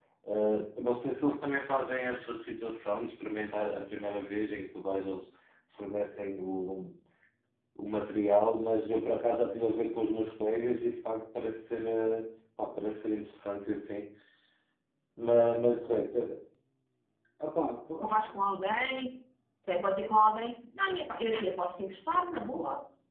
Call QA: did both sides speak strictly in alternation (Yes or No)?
Yes